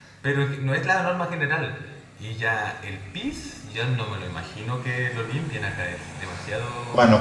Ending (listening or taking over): taking over